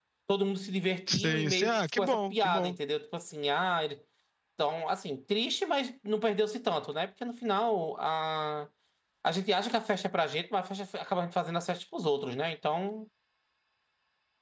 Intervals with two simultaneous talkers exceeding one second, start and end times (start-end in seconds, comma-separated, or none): 1.1-2.7